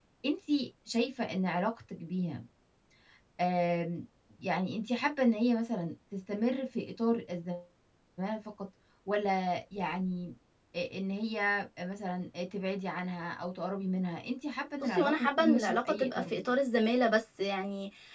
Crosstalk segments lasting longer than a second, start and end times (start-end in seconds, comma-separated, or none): 14.8-16.5